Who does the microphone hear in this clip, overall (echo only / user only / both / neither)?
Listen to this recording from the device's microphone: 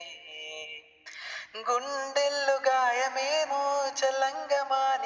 echo only